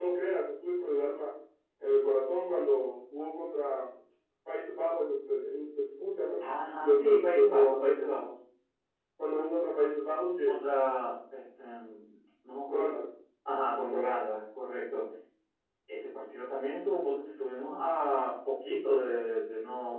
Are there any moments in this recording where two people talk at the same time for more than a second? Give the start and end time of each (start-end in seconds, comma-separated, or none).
6.8-8.1